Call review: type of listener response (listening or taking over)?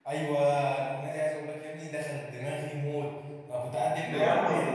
listening